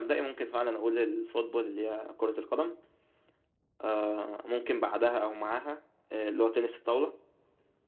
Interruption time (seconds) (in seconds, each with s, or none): none